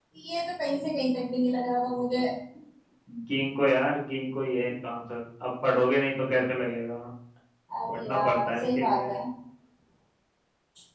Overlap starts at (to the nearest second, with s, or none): 8 s